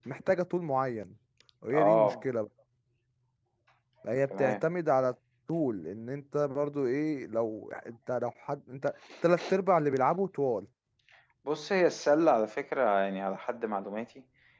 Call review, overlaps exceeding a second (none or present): none